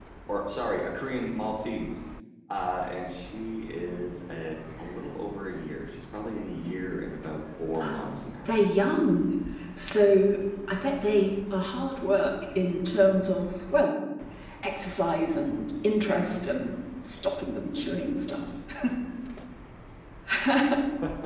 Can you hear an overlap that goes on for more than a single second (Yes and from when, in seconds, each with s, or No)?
No